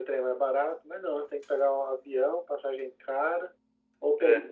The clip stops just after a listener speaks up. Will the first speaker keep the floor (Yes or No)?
Yes